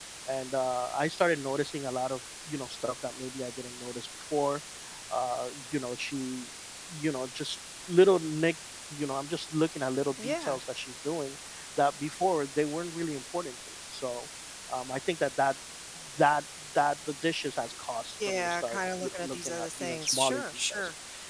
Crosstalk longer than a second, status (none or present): present